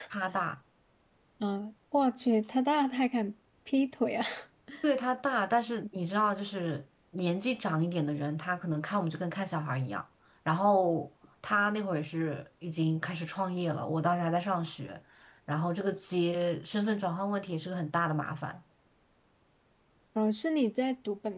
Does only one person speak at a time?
Yes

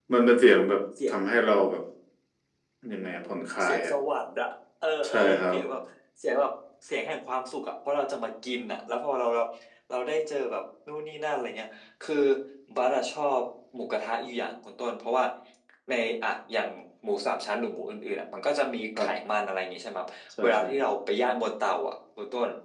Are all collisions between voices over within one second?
Yes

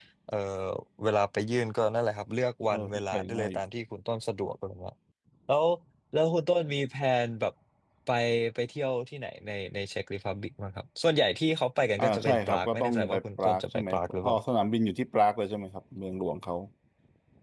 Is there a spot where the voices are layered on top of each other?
Yes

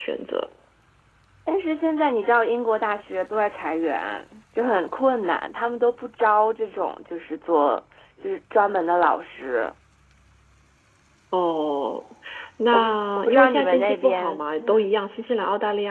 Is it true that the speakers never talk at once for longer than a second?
No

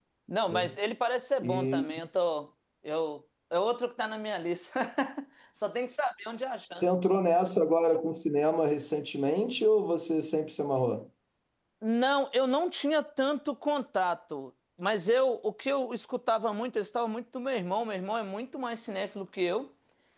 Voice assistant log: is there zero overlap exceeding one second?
Yes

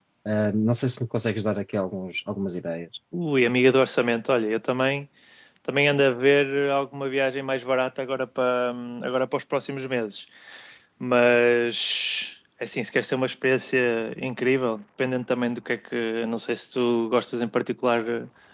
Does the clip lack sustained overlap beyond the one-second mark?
Yes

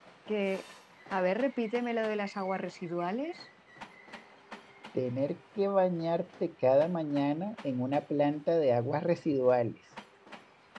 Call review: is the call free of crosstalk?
Yes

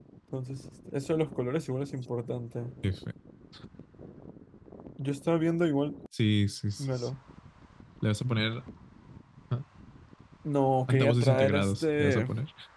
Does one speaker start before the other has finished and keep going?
Yes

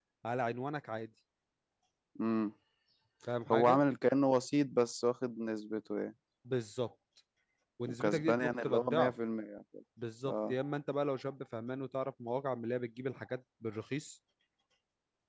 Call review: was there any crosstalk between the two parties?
Yes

